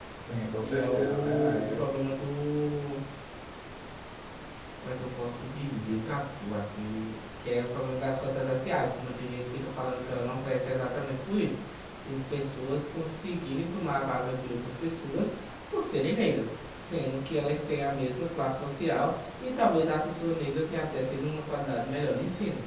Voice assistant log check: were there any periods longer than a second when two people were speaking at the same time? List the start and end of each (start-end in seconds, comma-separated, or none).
0.6-1.8